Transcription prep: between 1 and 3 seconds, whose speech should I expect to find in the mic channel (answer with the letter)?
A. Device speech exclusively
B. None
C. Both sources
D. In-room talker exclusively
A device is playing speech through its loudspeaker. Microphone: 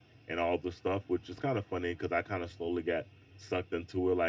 A